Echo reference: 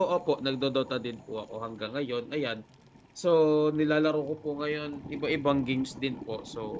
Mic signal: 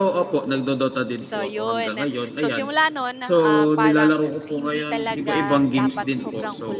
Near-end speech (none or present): present